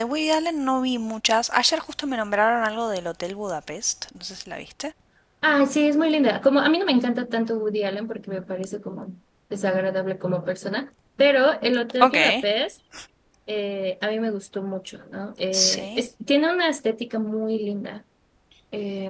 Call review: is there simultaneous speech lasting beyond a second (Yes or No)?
No